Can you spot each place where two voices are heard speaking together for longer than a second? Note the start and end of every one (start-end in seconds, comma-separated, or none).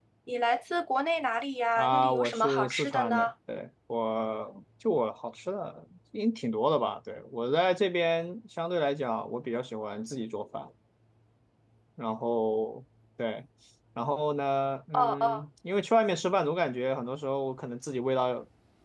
1.8-3.3